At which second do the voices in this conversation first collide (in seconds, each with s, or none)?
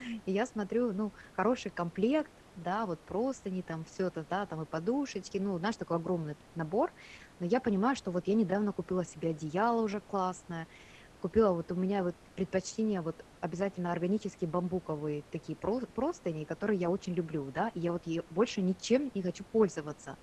none